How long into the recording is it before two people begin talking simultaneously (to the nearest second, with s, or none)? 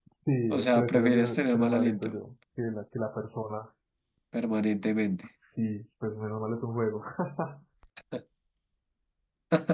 1 s